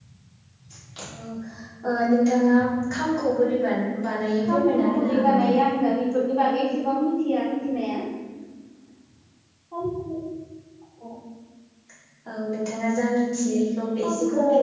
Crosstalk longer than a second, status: present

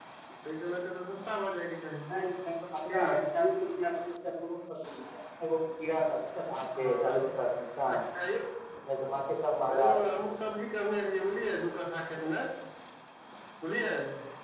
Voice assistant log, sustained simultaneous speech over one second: none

